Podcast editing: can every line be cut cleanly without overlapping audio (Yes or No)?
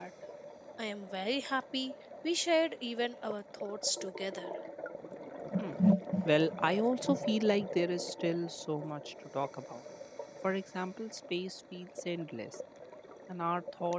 Yes